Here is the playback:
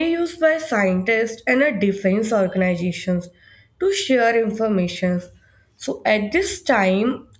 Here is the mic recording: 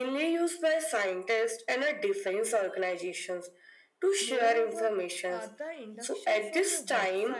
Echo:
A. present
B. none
A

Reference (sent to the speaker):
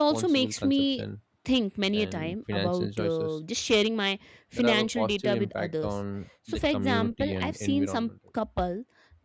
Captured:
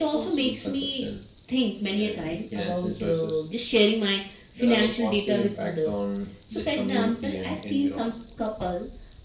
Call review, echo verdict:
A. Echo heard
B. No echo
A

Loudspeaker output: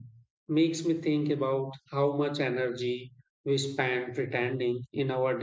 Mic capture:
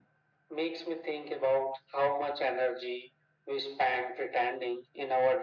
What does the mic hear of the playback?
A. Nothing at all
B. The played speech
B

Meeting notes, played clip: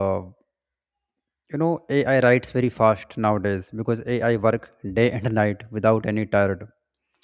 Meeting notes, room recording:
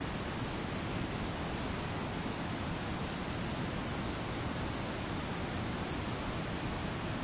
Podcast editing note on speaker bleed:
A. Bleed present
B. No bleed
B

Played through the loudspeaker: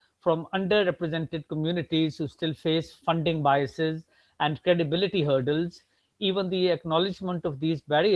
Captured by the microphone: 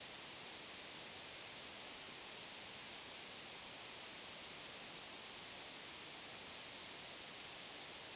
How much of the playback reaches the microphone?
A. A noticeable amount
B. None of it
B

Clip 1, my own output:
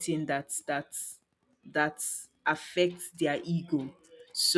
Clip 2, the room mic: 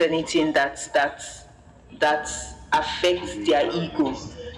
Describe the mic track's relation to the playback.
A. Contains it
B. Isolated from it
A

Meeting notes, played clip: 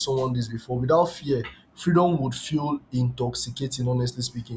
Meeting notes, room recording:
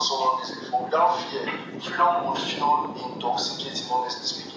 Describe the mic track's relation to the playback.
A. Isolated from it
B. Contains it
B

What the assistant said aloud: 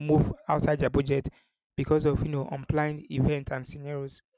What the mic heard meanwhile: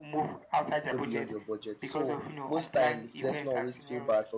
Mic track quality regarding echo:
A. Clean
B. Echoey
B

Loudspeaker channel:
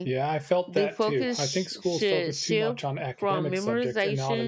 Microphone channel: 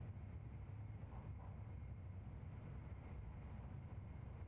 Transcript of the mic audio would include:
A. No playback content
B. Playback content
A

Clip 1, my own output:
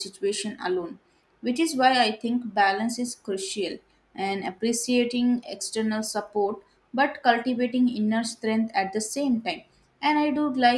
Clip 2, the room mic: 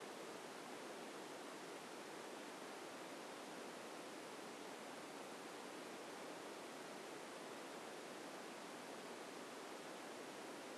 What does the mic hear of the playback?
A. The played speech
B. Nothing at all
B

